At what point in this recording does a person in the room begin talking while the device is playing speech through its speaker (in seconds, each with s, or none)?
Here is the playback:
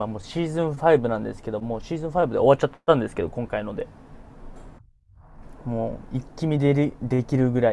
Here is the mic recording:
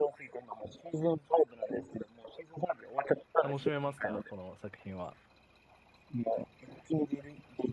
3.4 s